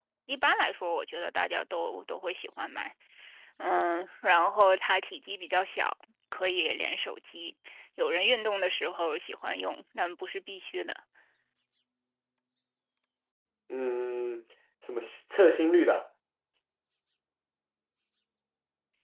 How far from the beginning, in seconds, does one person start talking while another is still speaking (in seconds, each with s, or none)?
none